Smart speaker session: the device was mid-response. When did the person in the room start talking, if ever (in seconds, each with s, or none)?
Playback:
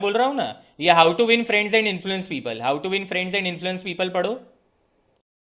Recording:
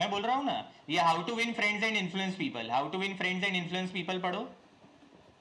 none